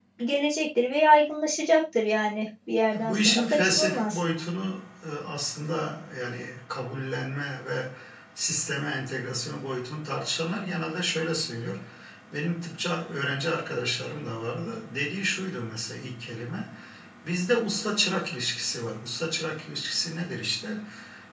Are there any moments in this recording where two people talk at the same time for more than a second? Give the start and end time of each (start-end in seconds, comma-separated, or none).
2.9-4.2